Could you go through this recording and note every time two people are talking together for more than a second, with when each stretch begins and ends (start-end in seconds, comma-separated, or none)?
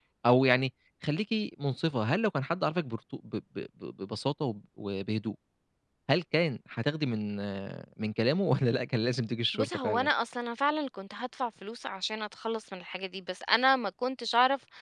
none